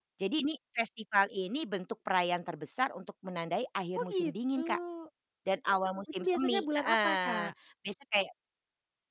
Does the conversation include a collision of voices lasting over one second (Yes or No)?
Yes